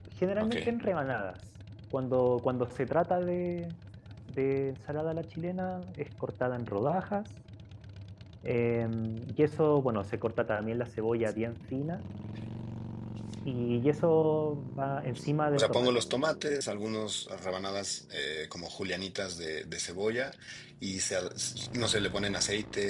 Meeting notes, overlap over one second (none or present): none